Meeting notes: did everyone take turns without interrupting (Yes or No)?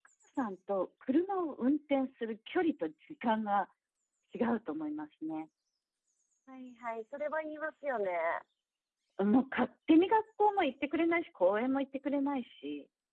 Yes